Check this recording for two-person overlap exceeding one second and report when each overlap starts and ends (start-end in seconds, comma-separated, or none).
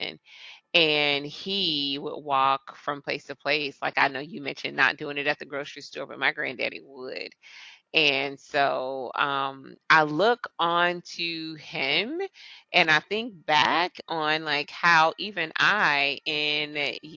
none